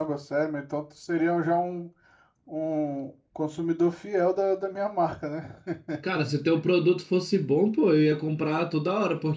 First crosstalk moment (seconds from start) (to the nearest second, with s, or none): none